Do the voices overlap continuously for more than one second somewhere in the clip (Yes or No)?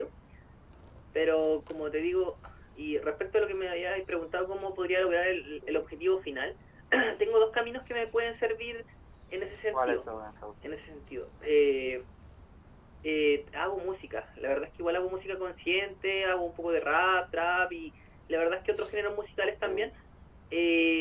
No